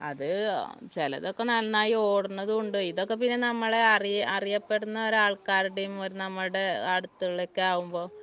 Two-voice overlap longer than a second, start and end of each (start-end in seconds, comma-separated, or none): none